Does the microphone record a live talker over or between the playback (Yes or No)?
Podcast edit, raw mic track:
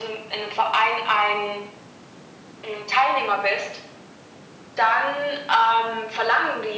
No